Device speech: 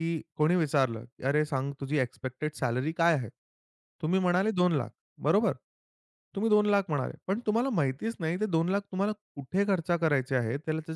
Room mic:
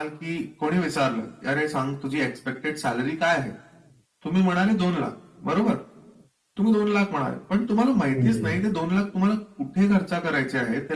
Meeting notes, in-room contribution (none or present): present